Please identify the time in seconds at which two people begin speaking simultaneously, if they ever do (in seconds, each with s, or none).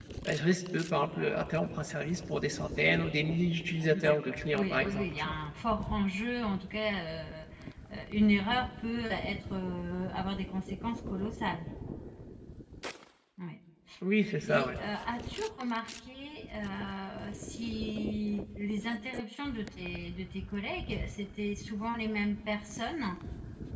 3.9 s